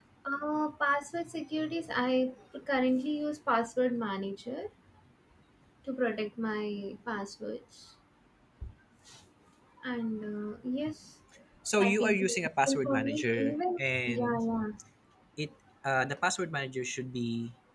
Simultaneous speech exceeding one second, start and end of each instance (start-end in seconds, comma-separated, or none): 11.8-14.4